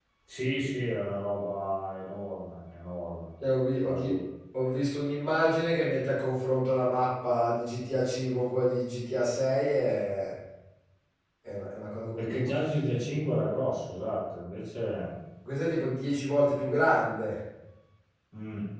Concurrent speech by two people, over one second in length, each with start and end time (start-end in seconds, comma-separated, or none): none